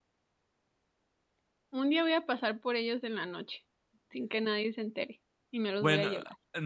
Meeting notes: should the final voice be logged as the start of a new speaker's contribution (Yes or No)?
Yes